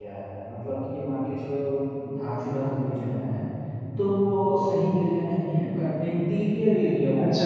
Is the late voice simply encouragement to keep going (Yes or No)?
No